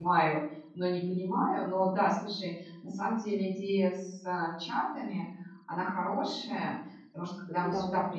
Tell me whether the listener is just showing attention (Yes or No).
Yes